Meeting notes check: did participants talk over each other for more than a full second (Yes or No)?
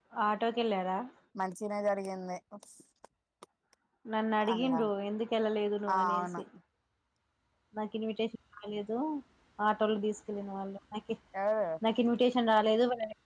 No